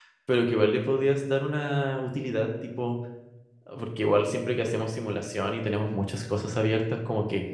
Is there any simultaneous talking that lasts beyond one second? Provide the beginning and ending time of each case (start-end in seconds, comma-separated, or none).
none